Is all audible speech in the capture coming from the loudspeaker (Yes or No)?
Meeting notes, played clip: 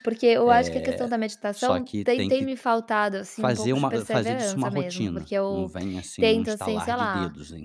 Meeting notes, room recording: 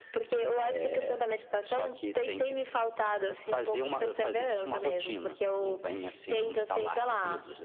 Yes